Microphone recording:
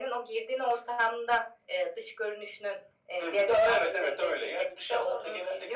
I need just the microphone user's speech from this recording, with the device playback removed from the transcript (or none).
none